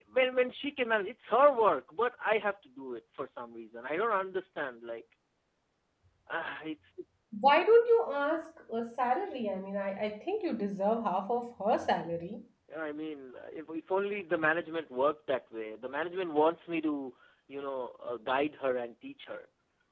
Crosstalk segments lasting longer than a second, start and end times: none

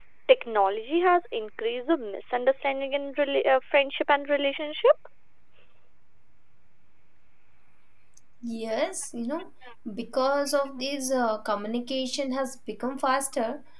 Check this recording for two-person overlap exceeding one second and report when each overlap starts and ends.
none

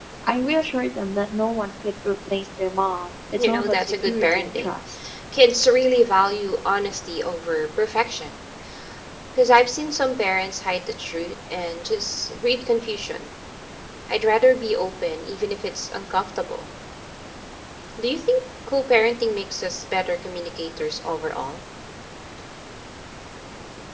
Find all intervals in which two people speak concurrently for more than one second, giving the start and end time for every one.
3.4-4.7

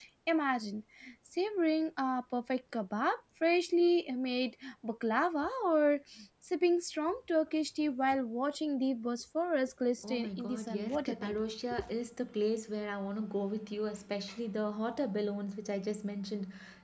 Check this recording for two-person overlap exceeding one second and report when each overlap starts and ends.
10.0-11.4

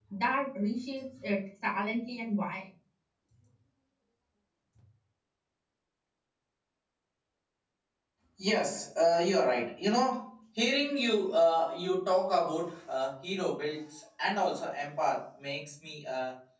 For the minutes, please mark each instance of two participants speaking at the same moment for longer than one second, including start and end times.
none

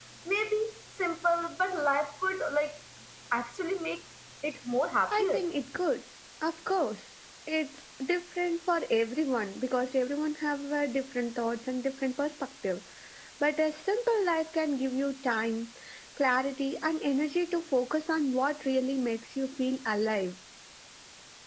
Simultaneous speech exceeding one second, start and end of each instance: none

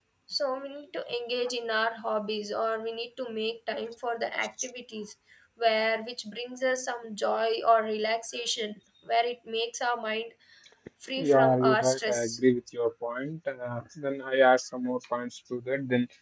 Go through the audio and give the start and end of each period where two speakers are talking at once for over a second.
11.2-12.4

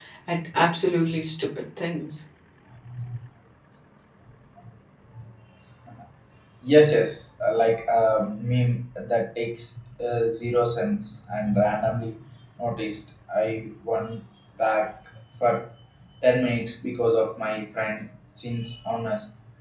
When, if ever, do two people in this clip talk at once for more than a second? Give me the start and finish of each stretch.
none

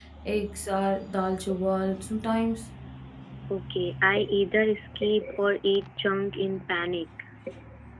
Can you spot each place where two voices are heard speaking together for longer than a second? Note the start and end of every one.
none

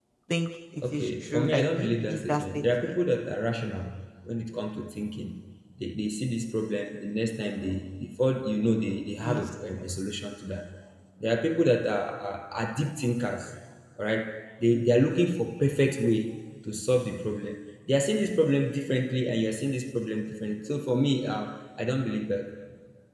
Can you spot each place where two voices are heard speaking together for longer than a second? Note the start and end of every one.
0.9-3.0

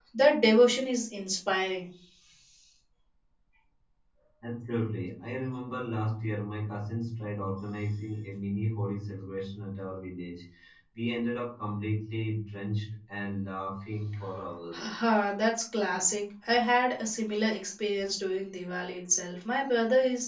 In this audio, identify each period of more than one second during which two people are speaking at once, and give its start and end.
none

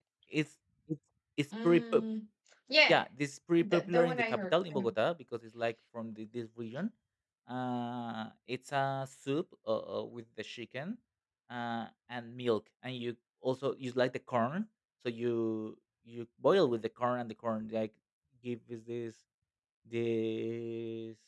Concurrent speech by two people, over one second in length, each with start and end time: 3.6-4.9

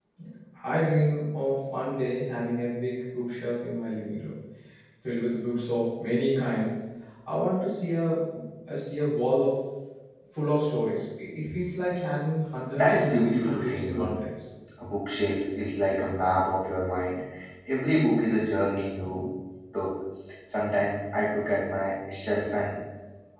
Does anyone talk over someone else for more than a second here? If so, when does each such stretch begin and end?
12.8-14.1

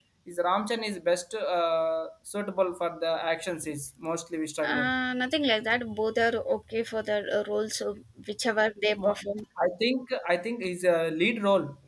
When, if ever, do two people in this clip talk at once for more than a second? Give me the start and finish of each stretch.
none

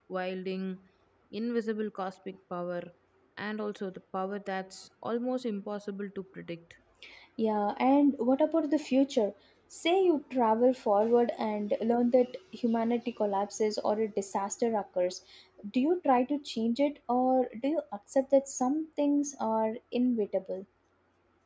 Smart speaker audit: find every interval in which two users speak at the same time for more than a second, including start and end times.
none

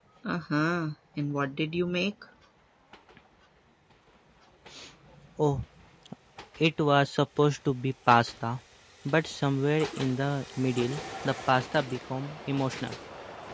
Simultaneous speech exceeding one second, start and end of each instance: none

